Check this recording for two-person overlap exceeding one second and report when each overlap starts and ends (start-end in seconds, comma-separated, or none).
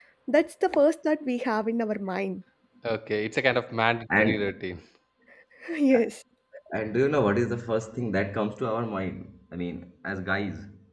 none